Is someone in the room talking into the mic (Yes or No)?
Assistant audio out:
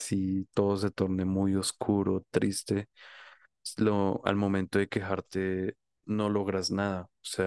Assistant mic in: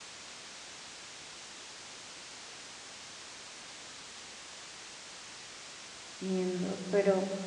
Yes